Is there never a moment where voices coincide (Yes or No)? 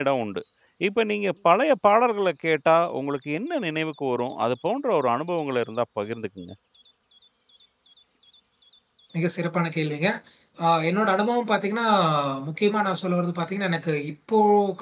Yes